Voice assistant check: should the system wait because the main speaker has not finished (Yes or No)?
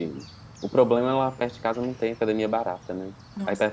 No